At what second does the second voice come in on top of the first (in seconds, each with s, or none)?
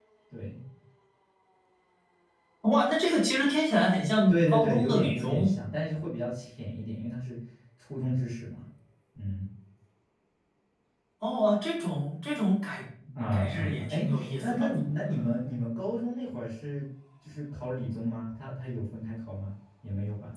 4.3 s